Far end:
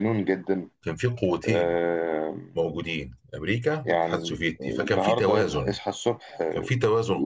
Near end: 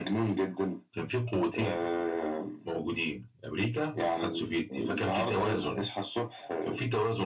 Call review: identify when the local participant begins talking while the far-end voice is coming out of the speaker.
none

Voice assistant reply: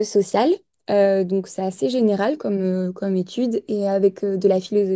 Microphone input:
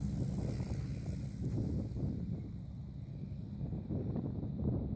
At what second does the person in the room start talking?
none

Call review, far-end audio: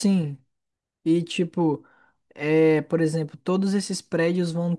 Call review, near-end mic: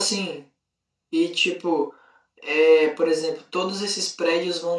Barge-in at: none

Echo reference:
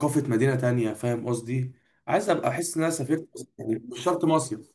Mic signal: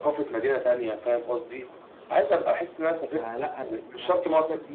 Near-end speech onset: 3.1 s

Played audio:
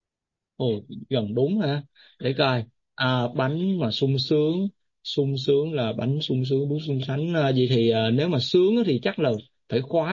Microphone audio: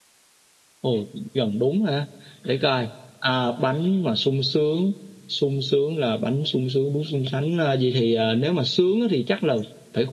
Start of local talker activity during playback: none

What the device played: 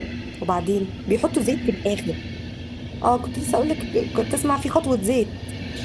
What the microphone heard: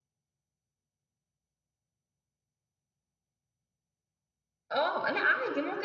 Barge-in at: 4.7 s

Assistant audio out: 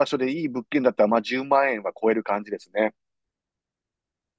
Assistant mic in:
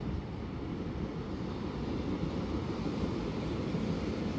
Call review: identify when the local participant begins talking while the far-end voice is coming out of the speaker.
none

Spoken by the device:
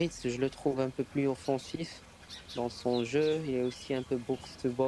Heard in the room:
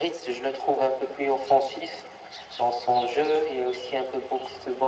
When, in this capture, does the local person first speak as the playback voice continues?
none

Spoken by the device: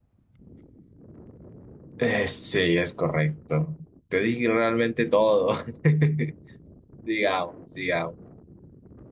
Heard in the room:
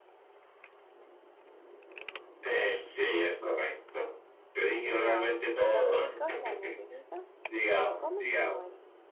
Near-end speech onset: 4.8 s

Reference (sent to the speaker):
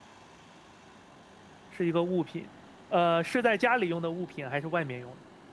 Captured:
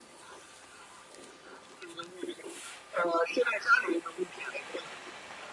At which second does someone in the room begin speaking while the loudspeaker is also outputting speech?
none

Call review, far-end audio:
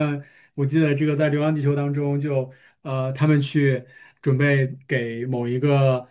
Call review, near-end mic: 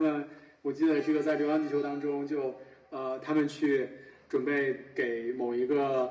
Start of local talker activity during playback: none

